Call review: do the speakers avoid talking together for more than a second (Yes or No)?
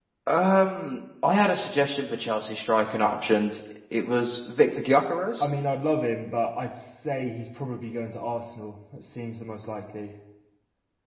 Yes